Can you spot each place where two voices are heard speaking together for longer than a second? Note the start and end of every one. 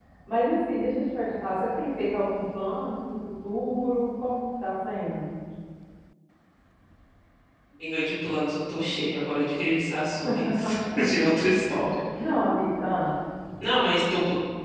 none

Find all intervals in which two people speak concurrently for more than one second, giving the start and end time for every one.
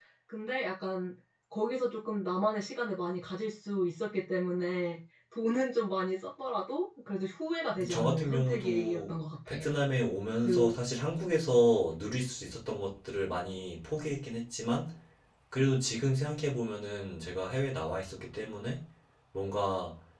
7.9-9.7

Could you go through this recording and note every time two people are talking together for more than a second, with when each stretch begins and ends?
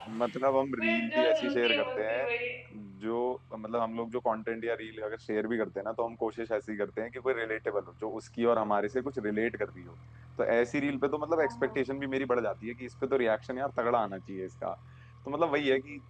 0.8-2.2

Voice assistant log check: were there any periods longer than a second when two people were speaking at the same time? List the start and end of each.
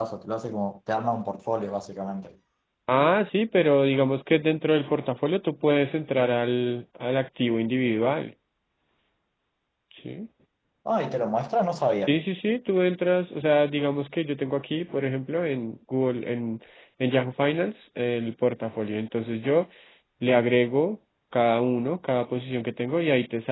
none

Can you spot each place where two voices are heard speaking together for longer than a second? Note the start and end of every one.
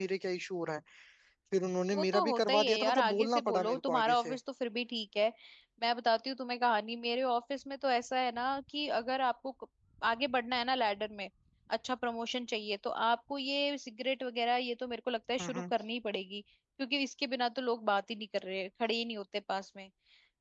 1.9-4.3

